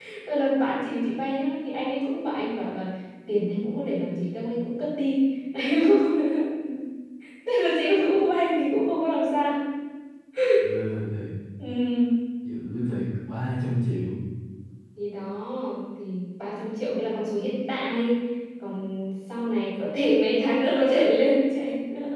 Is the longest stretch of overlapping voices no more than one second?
Yes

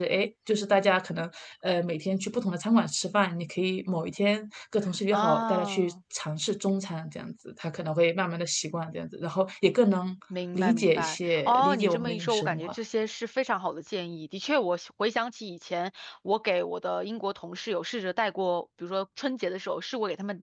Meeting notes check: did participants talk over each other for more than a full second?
Yes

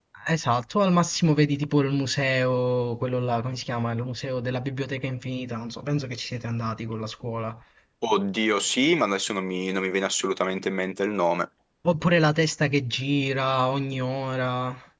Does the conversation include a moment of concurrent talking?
No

